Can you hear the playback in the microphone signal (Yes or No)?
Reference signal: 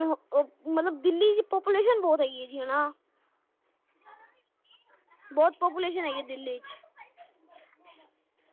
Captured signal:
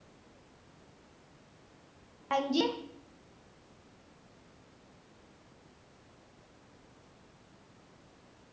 No